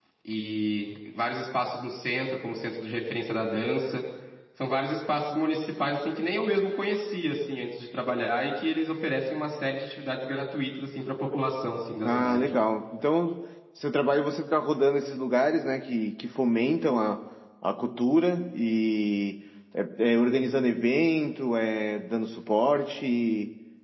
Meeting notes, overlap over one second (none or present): none